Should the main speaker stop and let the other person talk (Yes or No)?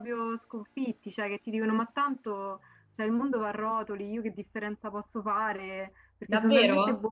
Yes